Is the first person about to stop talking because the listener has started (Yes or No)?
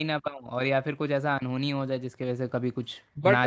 Yes